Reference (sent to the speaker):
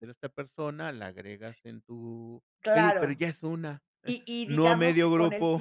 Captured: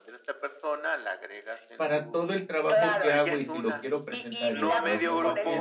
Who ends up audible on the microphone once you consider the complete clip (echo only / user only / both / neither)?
both